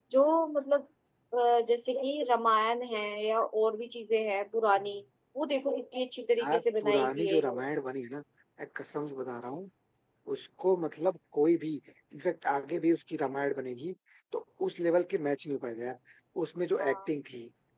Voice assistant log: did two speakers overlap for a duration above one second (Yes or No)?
Yes